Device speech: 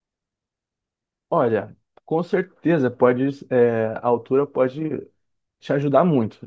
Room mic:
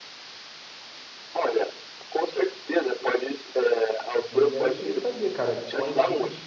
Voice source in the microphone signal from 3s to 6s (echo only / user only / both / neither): both